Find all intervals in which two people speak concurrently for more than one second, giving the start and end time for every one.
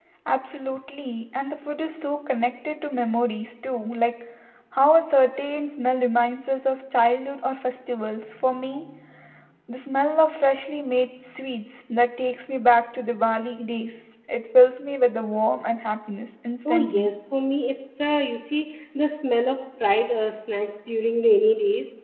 none

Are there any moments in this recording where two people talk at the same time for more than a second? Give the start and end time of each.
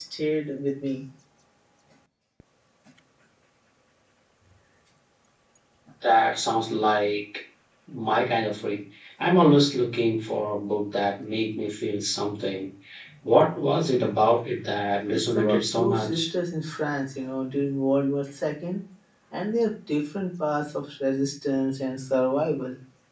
15.1-16.3

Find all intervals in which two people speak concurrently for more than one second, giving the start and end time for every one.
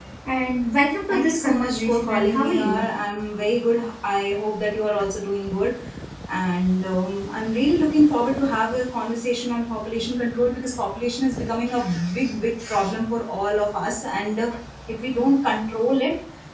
1.1-2.8

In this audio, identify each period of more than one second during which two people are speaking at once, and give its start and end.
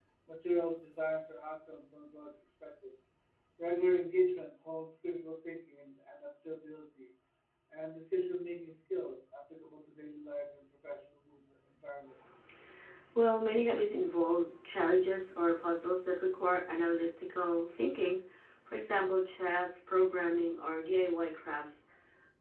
none

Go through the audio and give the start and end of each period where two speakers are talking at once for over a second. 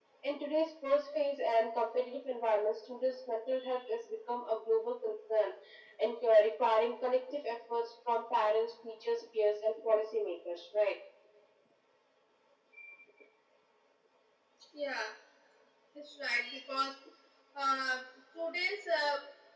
none

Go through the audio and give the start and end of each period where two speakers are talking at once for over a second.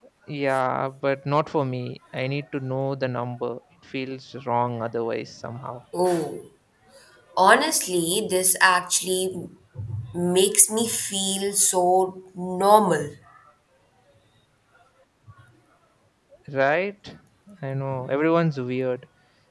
none

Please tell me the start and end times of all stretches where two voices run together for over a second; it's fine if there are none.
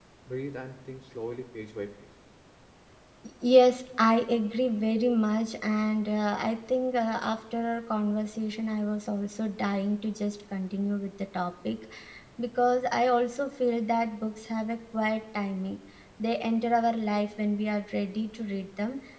none

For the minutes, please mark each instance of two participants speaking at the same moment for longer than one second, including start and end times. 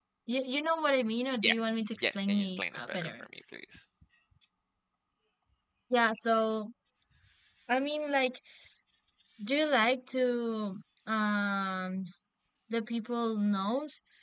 2.0-3.2

